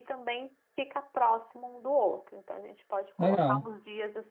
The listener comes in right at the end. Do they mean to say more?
No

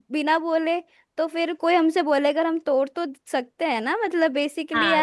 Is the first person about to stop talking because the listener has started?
Yes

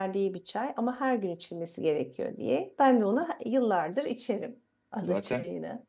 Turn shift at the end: Yes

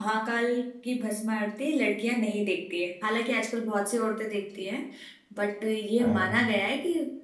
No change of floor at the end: Yes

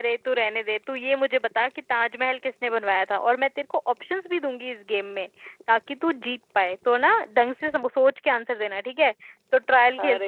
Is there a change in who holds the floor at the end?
Yes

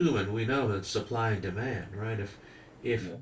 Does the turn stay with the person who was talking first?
Yes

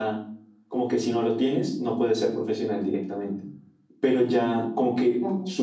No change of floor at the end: Yes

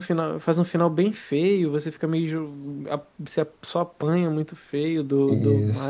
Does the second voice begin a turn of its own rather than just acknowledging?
Yes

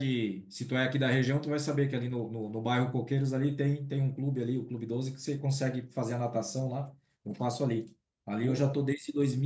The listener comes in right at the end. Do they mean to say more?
No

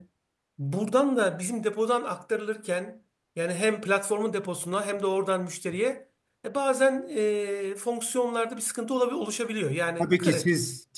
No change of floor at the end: No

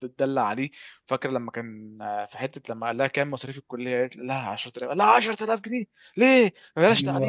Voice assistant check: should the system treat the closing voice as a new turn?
Yes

